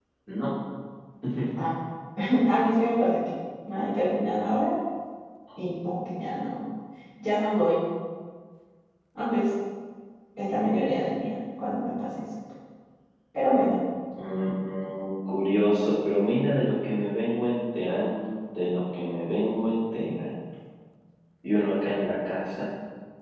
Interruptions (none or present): none